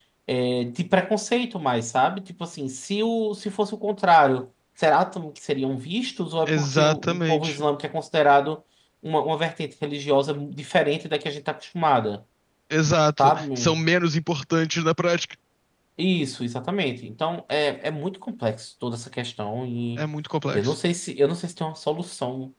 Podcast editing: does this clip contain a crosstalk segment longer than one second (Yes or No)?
Yes